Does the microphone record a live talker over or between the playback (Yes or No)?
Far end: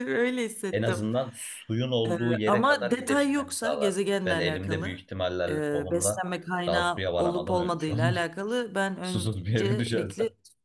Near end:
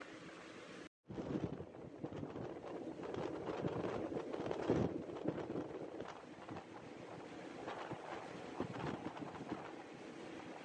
No